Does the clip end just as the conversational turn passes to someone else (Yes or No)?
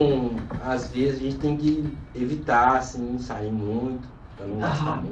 Yes